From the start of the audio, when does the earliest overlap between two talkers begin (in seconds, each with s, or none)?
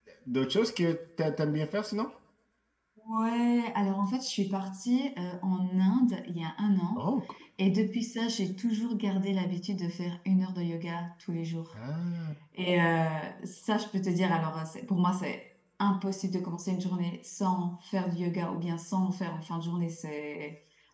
none